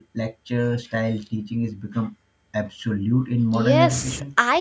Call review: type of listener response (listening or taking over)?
taking over